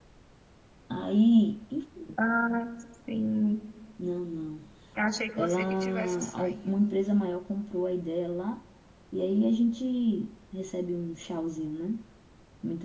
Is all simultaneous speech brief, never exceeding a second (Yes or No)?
No